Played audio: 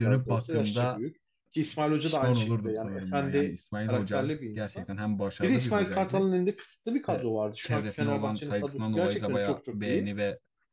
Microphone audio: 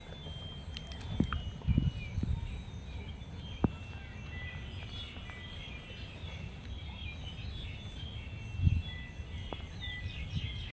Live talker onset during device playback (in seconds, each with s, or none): none